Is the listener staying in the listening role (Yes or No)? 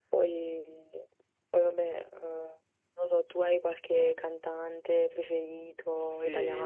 No